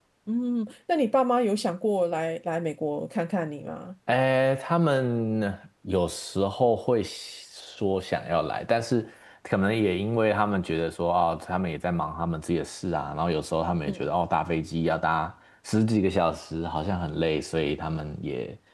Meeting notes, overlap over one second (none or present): none